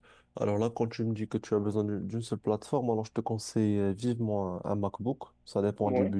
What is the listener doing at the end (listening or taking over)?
listening